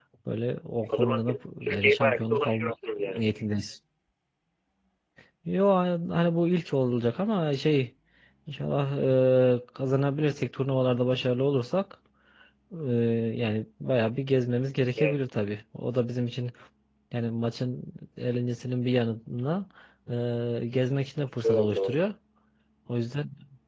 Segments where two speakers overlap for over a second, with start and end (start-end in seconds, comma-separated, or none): 0.9-3.2